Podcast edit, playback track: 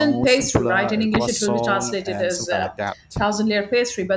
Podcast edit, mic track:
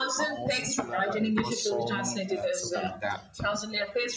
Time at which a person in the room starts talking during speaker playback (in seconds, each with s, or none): none